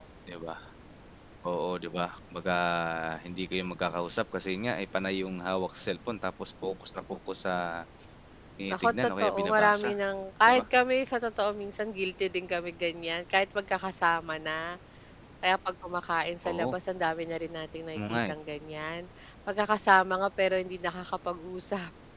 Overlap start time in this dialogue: 8.7 s

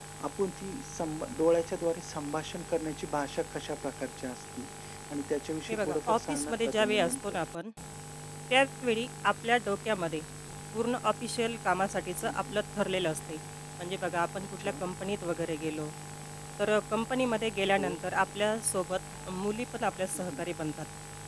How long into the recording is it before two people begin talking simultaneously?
5.7 s

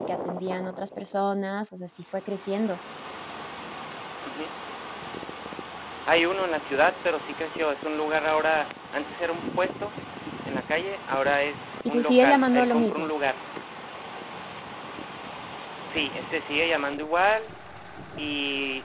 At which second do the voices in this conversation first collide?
11.8 s

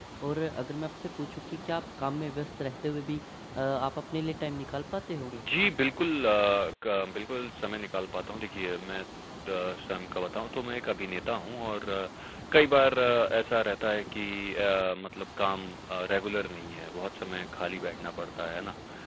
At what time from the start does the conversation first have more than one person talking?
none

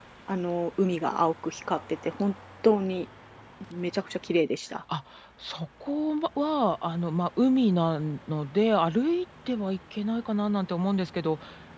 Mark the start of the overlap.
none

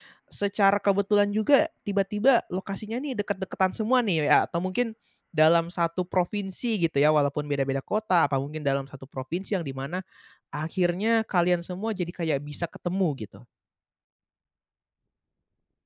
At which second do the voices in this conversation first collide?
none

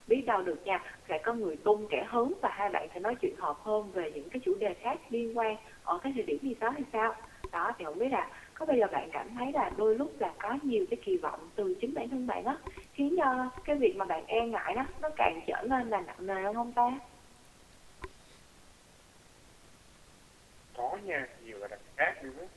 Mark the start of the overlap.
none

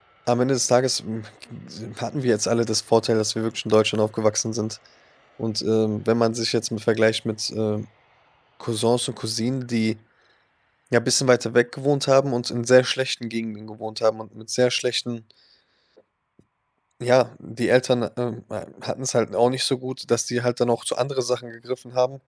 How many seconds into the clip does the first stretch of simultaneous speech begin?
none

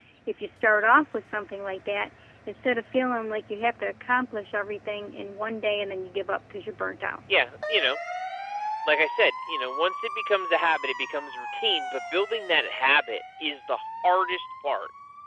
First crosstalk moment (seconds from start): none

